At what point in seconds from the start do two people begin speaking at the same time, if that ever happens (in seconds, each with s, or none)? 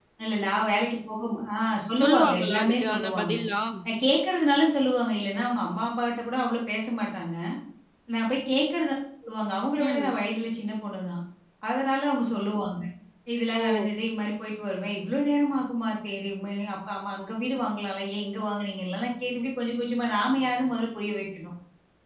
2.0 s